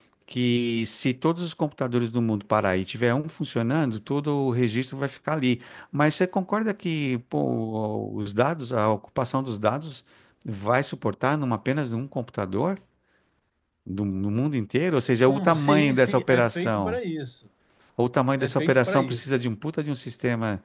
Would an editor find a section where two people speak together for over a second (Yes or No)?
Yes